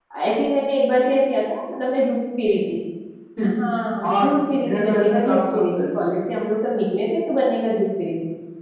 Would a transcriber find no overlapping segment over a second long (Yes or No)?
No